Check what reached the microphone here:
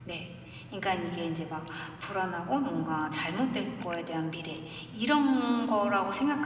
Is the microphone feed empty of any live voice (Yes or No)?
No